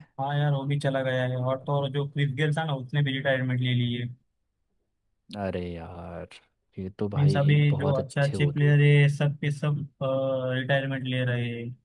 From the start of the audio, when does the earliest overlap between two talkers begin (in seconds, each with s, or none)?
7.2 s